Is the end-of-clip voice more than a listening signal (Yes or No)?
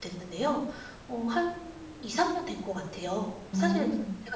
No